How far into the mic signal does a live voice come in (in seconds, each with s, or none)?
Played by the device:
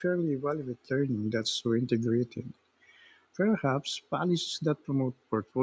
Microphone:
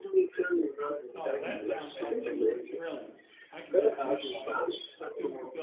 1.1 s